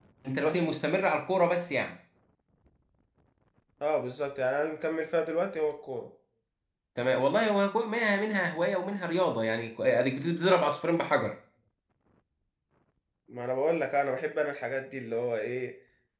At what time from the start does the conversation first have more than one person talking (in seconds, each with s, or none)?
none